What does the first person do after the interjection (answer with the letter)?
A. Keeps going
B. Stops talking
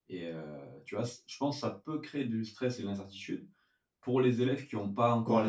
B